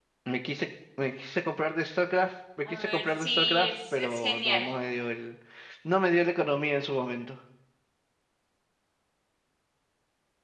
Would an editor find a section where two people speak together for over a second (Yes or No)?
Yes